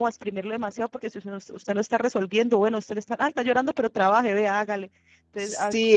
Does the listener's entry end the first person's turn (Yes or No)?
Yes